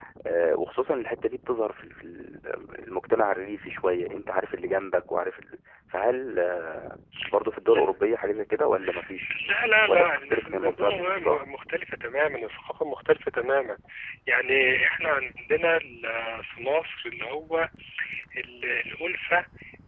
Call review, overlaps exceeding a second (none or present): present